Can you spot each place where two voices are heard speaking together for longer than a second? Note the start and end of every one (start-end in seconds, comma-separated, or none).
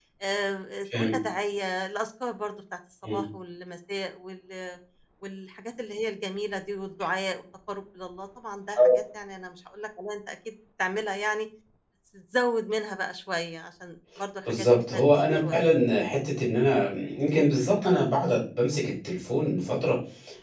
14.4-15.7